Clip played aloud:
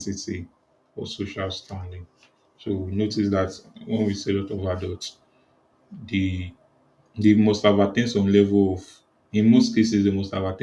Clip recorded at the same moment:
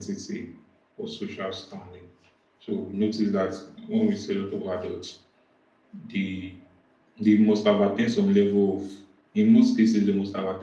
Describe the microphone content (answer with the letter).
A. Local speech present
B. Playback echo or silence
B